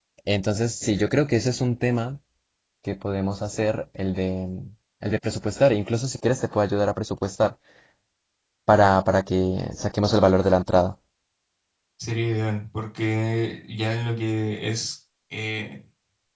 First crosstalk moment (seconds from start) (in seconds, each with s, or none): none